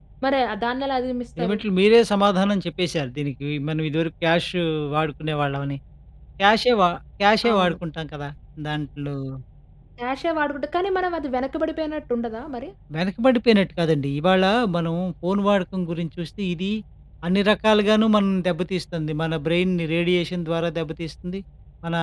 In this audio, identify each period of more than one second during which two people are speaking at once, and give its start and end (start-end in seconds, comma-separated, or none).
none